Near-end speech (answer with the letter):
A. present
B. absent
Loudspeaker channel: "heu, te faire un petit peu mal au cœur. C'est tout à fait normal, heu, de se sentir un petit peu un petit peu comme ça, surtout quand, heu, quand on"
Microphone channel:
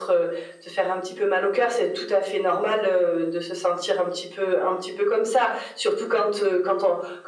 B